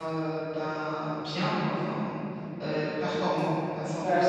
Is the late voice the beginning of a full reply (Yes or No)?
Yes